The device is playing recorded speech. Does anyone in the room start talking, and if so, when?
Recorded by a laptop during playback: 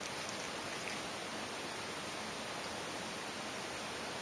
none

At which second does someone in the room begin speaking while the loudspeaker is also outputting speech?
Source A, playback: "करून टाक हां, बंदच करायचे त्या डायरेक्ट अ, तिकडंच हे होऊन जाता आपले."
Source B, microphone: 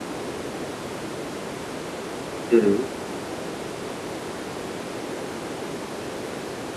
2.5 s

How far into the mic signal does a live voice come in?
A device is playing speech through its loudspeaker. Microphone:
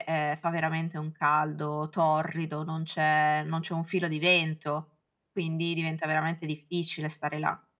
none

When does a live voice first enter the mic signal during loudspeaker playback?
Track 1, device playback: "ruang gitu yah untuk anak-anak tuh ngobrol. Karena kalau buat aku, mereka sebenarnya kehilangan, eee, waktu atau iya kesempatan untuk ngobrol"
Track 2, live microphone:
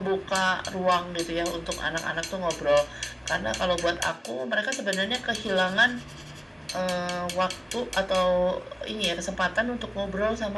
none

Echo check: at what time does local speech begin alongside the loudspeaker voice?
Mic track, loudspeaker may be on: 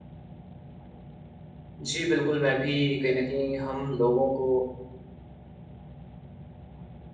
1.8 s

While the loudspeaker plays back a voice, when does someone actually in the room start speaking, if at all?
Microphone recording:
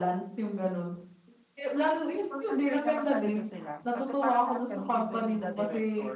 2.3 s

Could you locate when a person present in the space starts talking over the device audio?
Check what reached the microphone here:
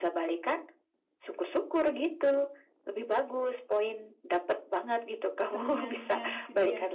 5.5 s

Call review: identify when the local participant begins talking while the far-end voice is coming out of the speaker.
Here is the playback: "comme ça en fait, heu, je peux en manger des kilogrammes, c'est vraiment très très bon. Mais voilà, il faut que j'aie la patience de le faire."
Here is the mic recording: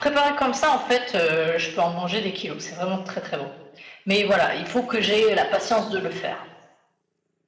none

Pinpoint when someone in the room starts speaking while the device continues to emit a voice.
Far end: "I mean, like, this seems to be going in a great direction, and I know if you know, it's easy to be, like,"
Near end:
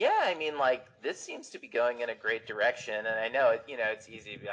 none

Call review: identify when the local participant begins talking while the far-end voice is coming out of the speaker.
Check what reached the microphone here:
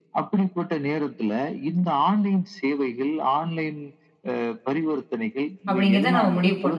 5.7 s

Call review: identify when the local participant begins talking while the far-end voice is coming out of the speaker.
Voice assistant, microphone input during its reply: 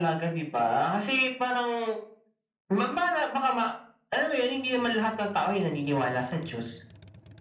none

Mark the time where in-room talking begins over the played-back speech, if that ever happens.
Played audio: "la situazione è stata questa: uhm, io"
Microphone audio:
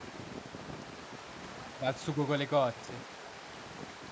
1.7 s

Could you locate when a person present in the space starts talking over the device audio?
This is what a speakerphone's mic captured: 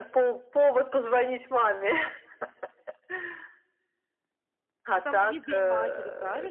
4.9 s

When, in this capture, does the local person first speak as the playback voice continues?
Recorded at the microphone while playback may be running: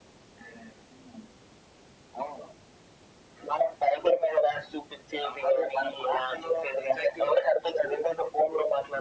none

